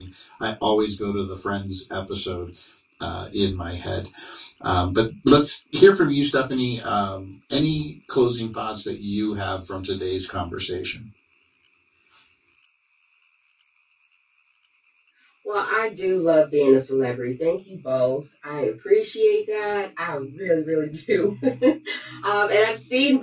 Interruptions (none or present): none